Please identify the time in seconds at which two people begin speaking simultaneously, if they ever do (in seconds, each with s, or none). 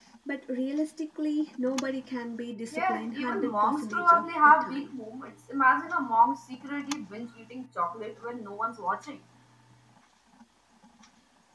2.7 s